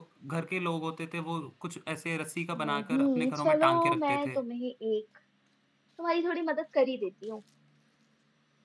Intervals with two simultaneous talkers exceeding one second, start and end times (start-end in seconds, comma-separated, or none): 2.6-4.4